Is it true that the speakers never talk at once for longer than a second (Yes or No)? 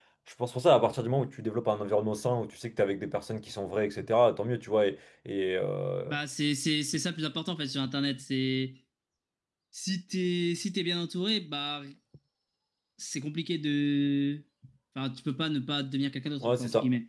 Yes